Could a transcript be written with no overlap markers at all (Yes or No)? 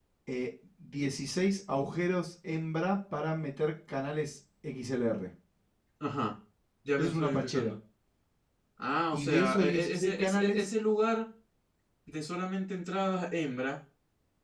No